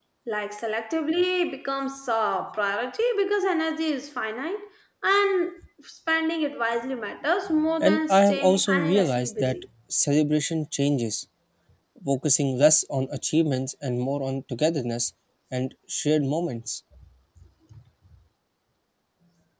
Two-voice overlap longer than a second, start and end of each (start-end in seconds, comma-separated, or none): 7.8-9.6